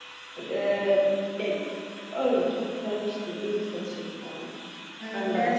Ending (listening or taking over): taking over